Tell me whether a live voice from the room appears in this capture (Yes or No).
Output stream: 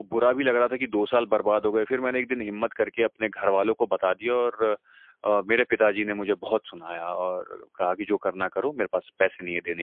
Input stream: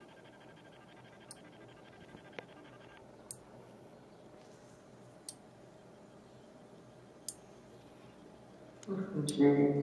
Yes